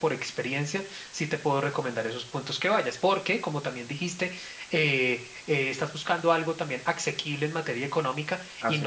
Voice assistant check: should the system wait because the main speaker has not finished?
Yes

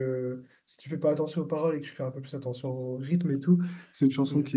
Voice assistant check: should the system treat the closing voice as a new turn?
No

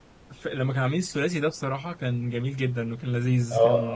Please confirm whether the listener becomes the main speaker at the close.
Yes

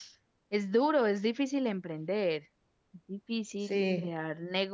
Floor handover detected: No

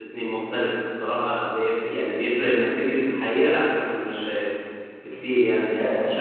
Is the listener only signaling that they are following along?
Yes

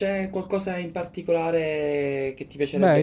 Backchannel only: No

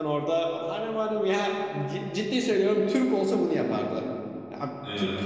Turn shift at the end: No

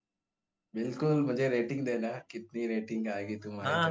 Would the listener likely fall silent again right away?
No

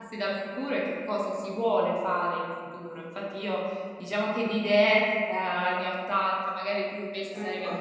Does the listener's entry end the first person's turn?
No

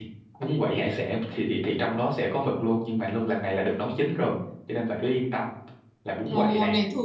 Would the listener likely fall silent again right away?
No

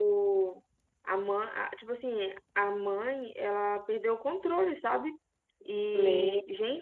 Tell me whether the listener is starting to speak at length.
No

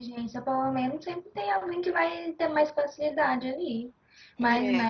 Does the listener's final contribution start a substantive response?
No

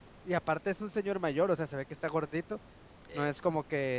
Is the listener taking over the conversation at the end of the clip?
No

